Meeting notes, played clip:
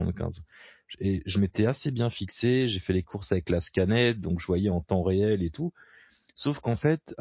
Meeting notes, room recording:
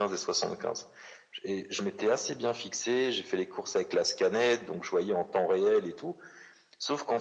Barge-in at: none

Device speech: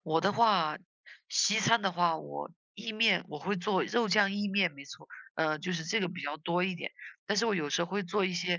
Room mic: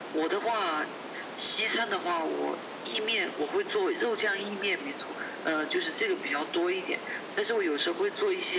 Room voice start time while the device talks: none

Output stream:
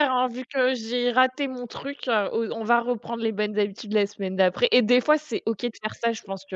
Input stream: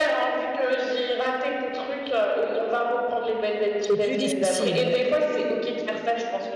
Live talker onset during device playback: 3.9 s

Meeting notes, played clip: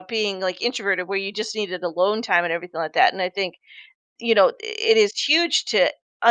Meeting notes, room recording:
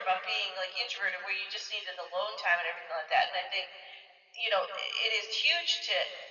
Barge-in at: none

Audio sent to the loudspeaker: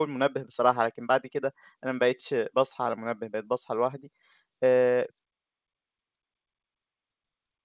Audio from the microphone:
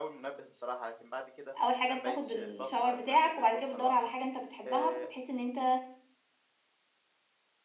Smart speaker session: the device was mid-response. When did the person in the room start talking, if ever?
1.6 s

